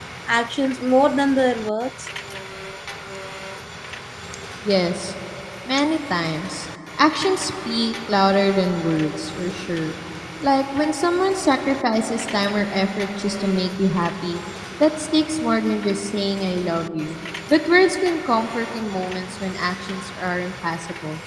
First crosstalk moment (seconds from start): none

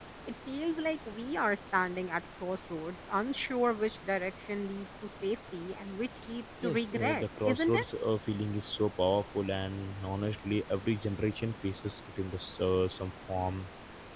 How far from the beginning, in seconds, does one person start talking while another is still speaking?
6.6 s

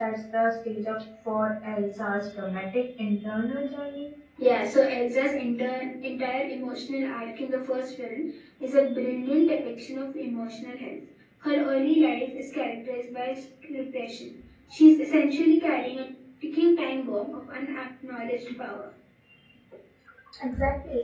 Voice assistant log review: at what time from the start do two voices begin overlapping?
none

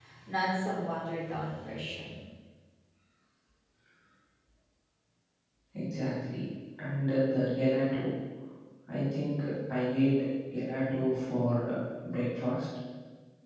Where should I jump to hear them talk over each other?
none

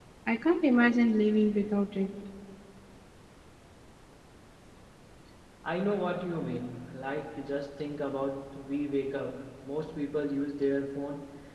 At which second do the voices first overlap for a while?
none

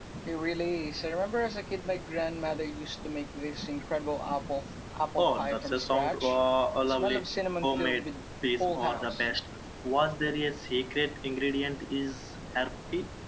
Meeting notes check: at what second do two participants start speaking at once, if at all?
5.2 s

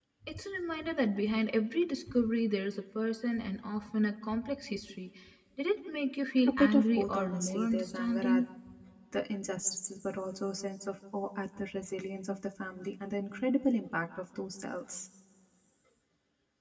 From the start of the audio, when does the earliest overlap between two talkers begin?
6.5 s

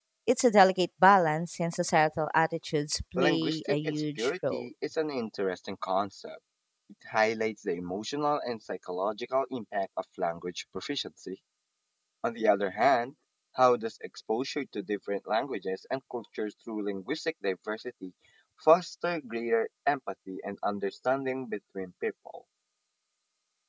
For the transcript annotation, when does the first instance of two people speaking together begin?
3.2 s

